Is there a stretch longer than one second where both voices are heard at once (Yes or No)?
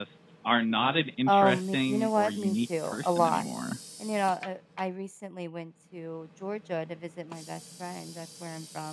Yes